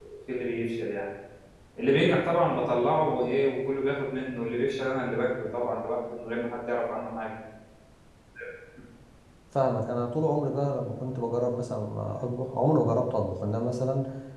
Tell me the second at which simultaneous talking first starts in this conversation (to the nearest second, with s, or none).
none